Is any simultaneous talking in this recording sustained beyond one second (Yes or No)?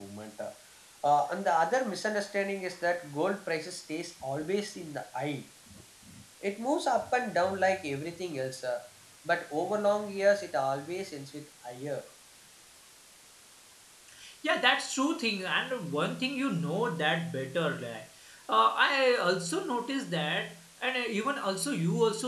No